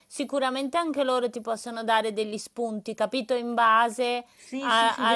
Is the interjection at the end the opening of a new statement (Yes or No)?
Yes